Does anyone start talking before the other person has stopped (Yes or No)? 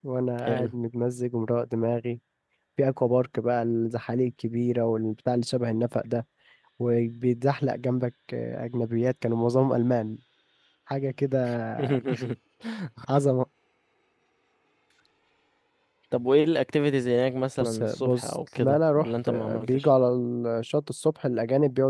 Yes